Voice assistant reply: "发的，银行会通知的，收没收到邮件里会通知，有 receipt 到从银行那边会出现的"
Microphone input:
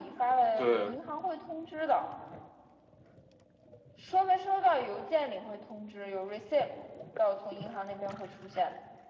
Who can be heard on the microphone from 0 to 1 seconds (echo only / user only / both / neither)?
both